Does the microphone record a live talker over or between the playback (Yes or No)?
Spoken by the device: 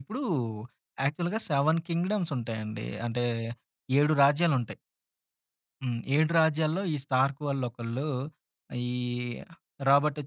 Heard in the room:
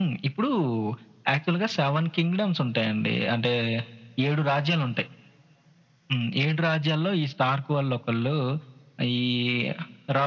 No